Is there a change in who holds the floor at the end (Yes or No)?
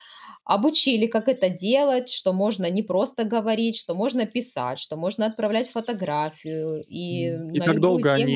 Yes